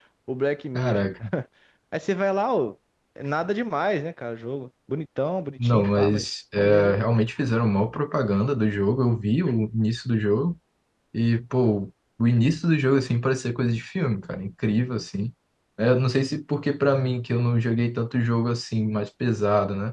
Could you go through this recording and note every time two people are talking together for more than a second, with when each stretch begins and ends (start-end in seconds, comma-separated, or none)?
5.6-7.0